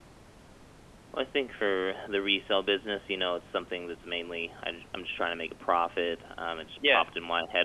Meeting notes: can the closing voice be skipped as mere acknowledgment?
Yes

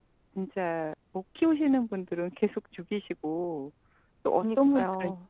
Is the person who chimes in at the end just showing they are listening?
Yes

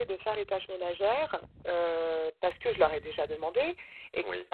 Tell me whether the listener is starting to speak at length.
No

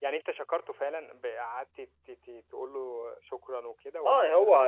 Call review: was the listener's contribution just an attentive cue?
No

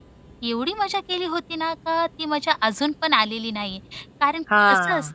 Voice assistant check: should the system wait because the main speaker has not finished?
Yes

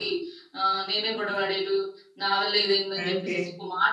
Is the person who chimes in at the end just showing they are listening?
Yes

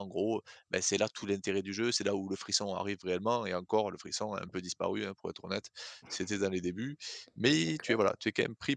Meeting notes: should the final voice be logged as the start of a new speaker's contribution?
No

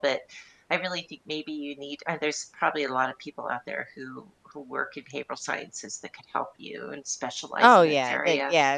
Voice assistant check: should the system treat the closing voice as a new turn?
Yes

